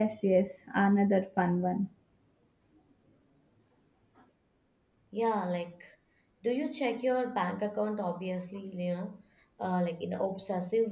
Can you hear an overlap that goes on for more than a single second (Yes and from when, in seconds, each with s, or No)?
No